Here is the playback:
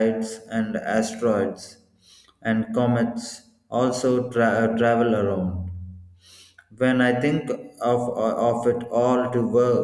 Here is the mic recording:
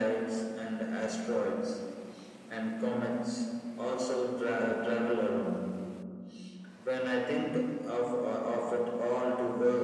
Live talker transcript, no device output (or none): none